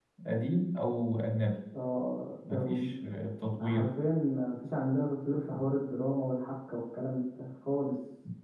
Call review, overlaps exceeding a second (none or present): none